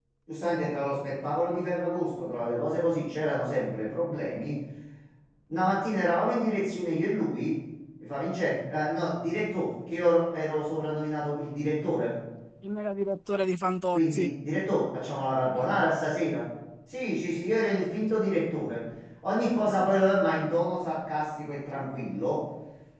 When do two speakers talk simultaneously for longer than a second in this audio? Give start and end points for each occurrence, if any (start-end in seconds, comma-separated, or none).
none